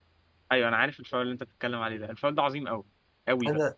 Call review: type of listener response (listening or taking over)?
listening